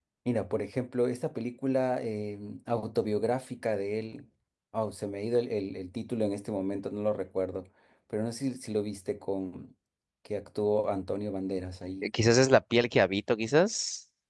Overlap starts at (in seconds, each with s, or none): none